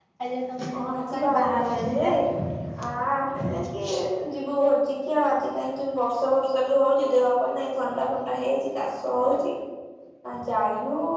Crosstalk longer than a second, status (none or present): present